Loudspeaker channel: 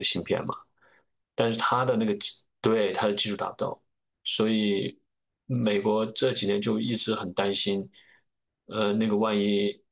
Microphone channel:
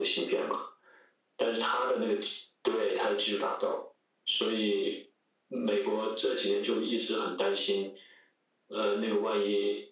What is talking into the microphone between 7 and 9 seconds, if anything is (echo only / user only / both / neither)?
echo only